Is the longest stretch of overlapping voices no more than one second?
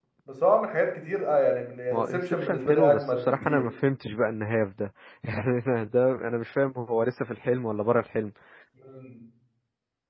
No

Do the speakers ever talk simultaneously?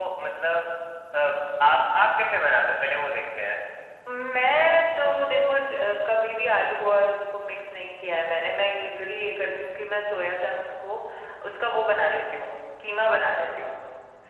No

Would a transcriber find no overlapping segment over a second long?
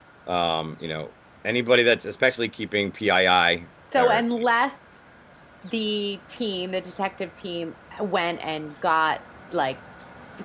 Yes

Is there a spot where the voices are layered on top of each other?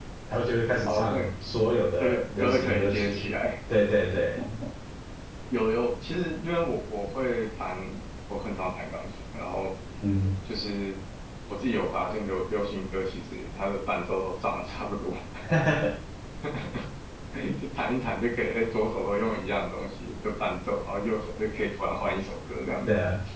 Yes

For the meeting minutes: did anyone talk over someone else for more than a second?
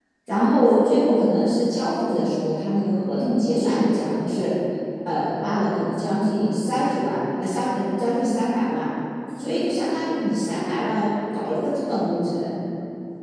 No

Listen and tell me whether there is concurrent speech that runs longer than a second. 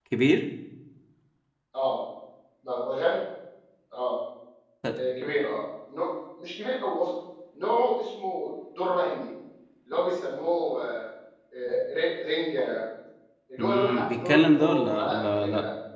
Yes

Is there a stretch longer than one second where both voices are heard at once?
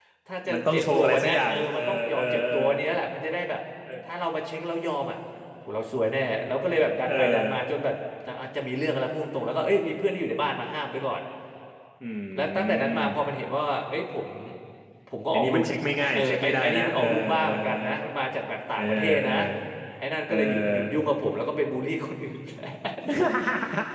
Yes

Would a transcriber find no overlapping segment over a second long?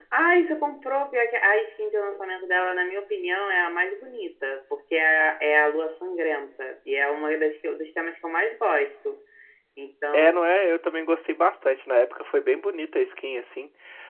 Yes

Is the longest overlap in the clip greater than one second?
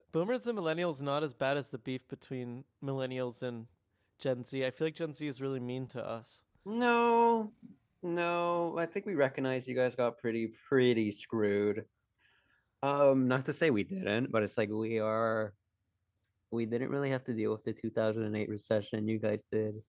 No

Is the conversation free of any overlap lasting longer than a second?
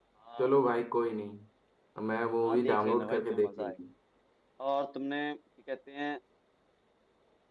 No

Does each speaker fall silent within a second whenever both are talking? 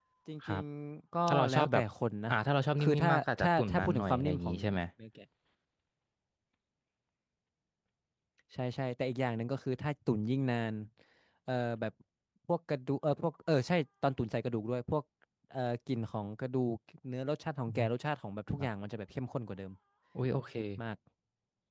No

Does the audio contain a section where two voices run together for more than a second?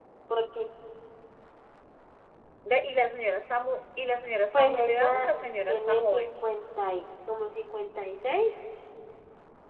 Yes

